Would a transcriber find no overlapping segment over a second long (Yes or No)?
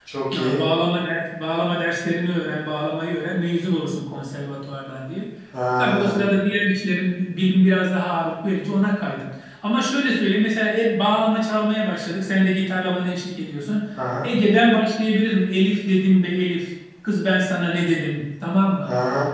Yes